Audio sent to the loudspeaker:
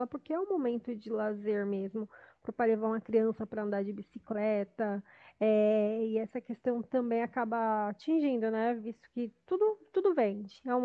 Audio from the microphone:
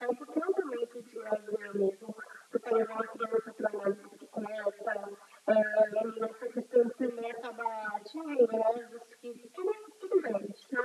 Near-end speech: none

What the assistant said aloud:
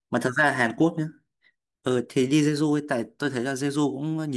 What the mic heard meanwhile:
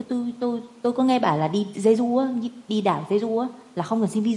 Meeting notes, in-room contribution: present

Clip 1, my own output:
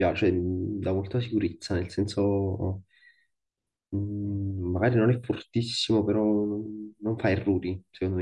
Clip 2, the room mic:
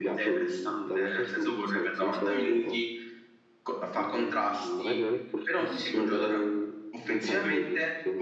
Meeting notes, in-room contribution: present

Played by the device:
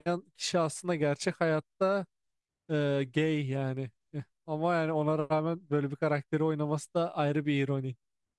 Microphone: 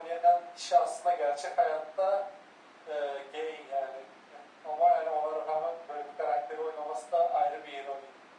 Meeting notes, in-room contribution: none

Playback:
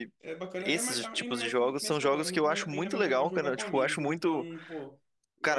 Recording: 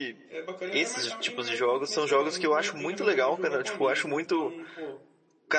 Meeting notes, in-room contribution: none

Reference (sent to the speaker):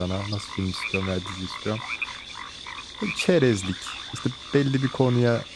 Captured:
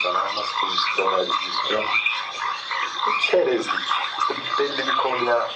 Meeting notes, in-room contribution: none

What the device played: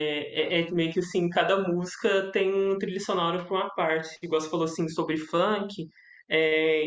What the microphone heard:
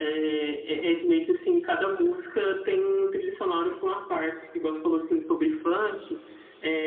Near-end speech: none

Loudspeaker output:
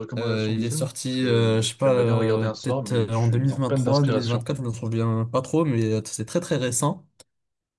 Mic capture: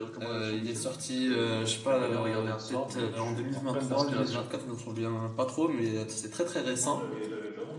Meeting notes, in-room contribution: present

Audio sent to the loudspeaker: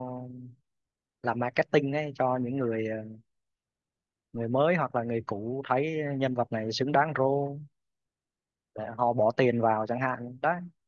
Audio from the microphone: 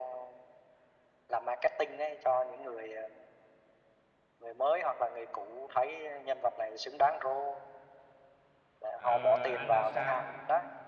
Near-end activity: present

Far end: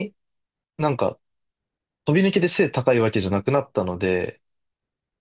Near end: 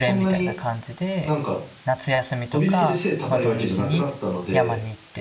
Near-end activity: present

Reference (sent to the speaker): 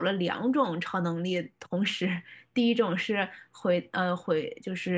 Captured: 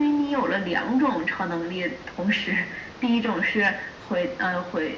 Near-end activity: none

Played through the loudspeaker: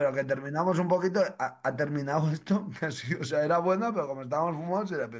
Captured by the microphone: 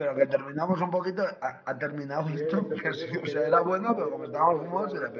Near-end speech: present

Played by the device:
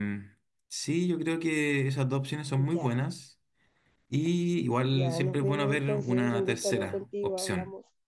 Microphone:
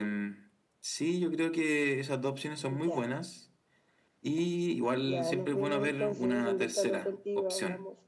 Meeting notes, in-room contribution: none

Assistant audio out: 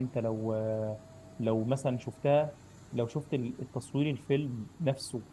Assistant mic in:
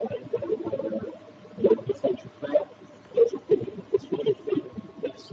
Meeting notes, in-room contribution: none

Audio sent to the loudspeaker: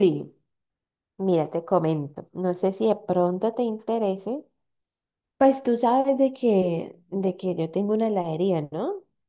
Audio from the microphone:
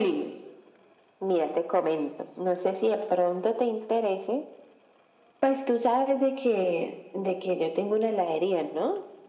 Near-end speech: none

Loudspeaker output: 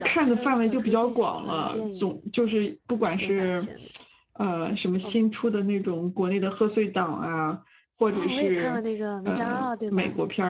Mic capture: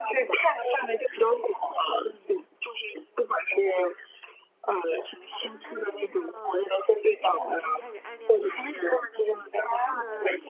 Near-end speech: present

